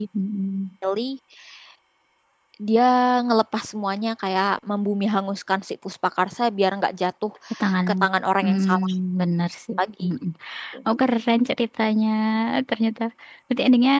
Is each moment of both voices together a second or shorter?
Yes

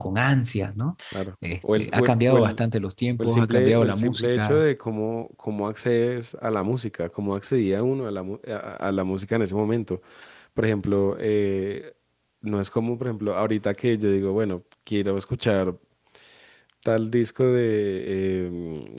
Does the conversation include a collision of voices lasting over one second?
Yes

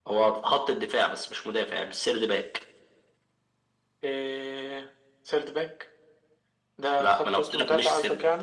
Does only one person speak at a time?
No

